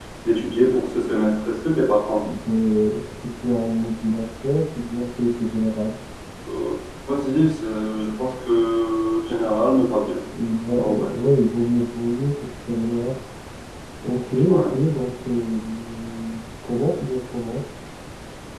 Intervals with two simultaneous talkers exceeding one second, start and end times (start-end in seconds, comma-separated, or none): none